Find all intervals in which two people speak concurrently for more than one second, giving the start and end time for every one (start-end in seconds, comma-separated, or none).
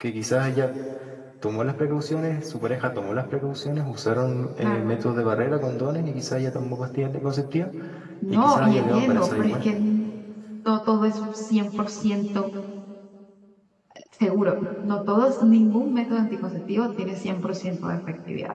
8.3-9.6